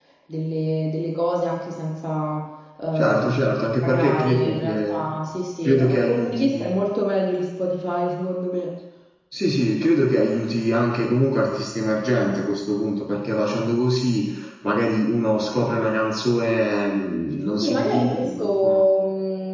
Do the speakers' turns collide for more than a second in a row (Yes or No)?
Yes